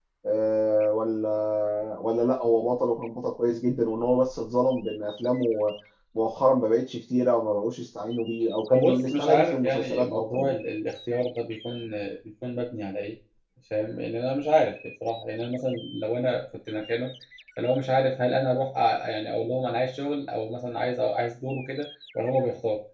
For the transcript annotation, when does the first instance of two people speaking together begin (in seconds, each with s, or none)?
8.7 s